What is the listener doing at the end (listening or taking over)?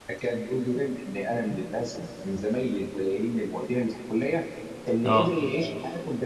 listening